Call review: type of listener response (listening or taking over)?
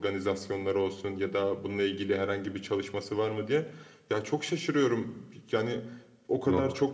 listening